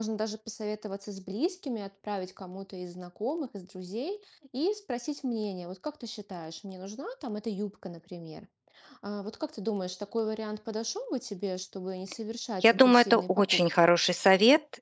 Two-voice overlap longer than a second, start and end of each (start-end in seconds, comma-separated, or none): 12.6-13.9